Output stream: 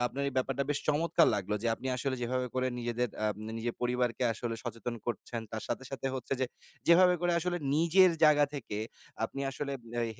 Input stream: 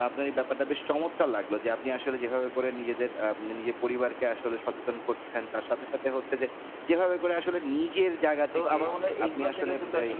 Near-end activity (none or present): present